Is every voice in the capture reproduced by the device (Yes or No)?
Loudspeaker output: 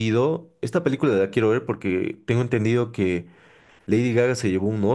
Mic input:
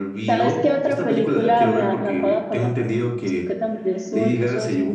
No